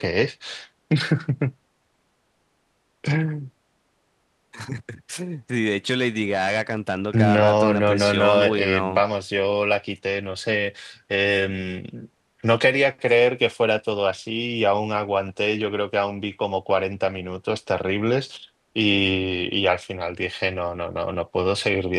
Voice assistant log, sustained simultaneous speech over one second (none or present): present